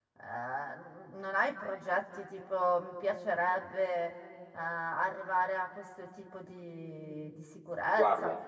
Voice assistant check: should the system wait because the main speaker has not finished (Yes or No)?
Yes